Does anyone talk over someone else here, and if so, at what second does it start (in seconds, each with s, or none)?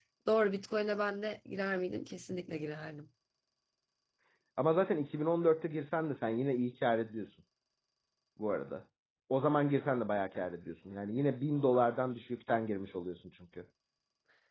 none